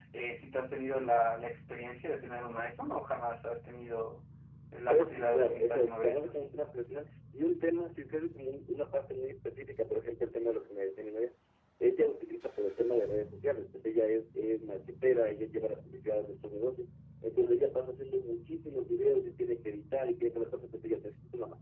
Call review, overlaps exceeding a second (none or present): present